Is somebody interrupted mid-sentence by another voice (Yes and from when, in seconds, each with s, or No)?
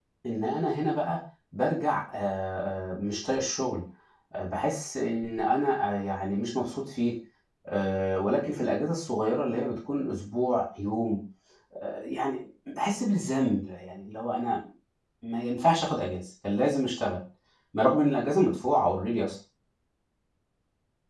No